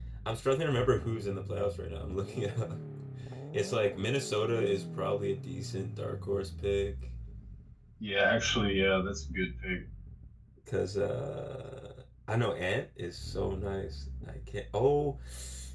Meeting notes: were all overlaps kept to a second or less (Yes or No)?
Yes